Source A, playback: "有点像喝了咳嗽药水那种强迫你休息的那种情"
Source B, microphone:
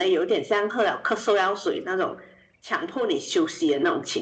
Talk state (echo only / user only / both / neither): echo only